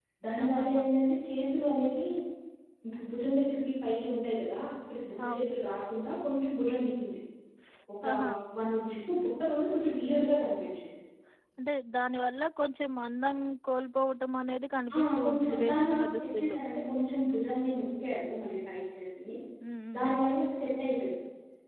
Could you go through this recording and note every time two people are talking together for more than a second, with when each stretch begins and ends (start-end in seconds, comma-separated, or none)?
15.0-16.6